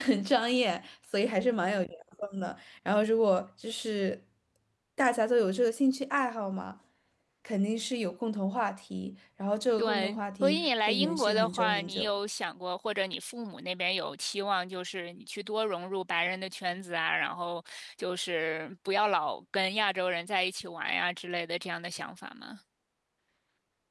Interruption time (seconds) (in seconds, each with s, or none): 9.8 s